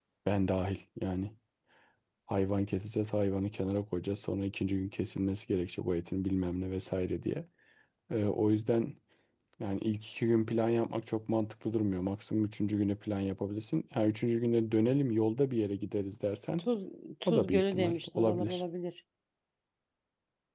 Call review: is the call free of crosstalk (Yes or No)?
No